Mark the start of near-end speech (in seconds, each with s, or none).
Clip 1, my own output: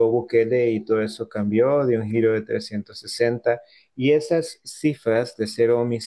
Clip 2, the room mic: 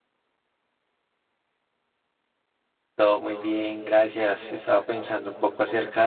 3.0 s